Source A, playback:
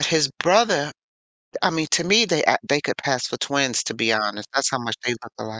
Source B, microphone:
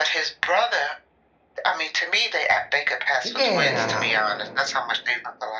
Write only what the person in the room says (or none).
Yeah,